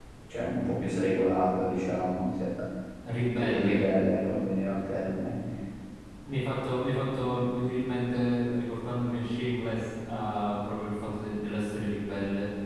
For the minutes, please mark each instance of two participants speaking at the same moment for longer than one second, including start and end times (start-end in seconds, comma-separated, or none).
none